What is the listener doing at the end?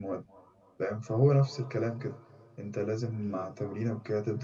listening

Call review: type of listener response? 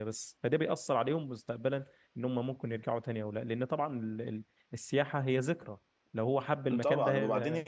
taking over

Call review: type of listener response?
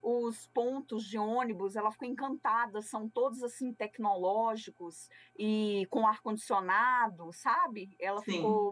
listening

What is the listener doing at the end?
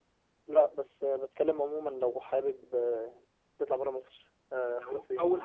taking over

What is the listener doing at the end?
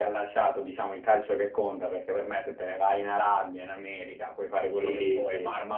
listening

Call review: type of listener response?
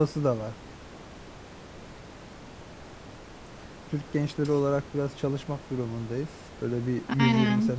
taking over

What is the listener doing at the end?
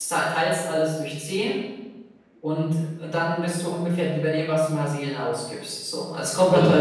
listening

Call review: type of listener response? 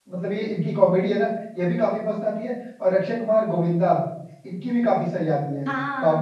taking over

